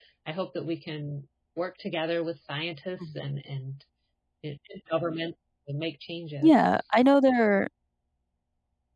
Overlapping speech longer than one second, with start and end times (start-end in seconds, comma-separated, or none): none